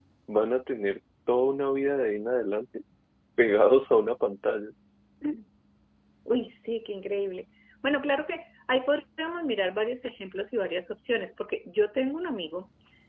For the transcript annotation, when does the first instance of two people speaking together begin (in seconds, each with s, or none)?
none